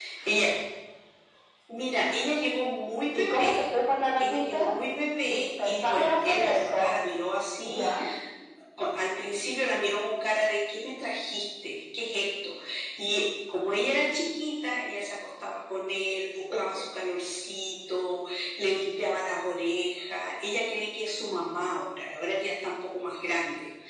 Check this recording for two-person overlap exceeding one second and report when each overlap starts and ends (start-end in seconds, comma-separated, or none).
5.2-7.0